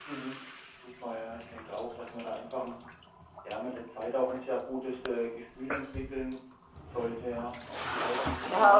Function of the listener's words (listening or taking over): taking over